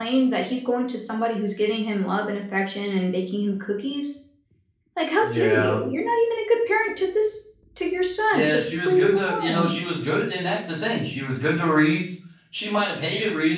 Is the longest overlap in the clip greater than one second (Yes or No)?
Yes